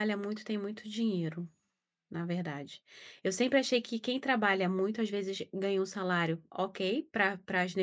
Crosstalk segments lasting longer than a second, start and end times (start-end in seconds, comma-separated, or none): none